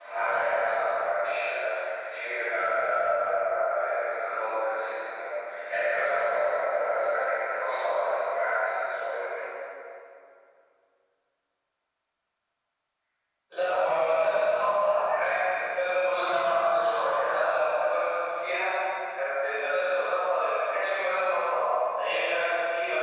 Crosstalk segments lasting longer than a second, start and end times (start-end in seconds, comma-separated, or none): none